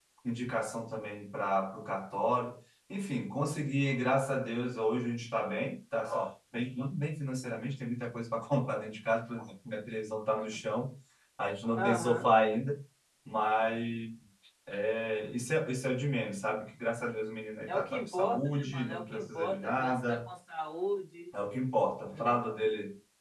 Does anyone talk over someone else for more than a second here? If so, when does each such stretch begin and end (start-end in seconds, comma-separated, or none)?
17.7-20.3